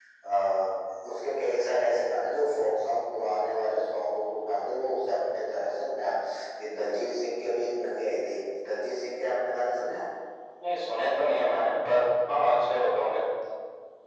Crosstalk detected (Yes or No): No